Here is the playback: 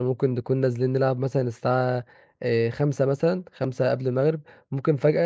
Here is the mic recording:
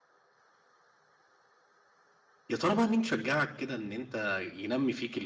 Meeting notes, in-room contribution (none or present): present